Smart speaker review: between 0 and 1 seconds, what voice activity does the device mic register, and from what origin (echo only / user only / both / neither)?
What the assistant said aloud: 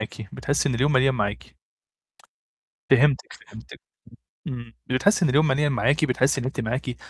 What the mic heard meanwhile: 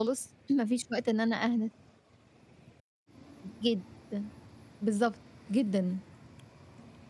user only